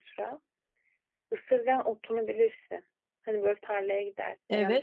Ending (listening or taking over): taking over